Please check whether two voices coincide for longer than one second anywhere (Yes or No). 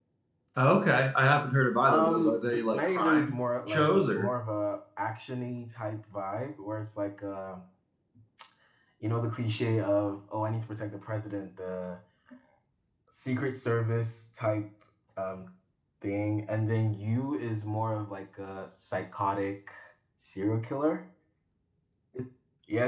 Yes